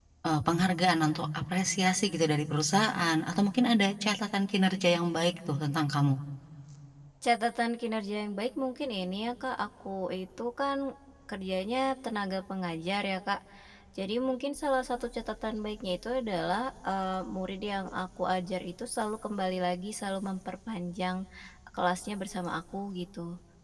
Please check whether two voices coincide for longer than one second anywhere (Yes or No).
No